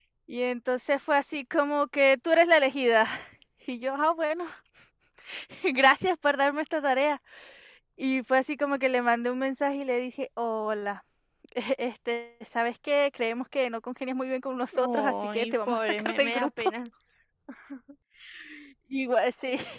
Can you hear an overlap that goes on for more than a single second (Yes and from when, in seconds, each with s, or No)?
Yes, from 14.7 s